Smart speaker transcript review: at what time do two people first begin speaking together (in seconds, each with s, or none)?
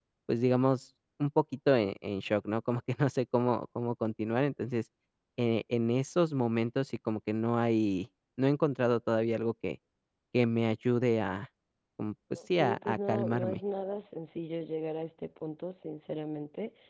12.4 s